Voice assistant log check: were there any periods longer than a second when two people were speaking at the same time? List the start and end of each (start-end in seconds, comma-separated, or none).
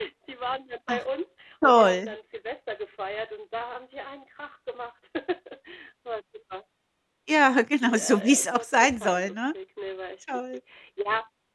7.8-9.4